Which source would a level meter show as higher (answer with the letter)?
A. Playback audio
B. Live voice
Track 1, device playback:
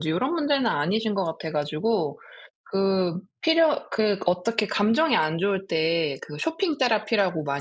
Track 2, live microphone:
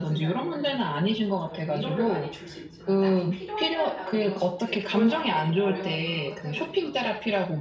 A